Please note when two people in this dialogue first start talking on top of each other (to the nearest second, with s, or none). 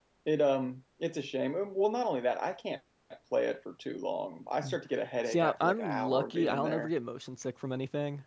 5 s